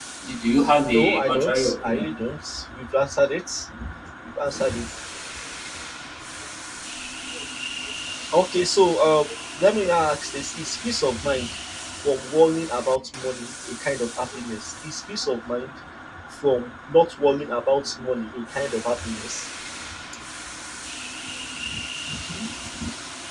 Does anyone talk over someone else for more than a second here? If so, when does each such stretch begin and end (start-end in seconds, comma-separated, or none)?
0.9-2.2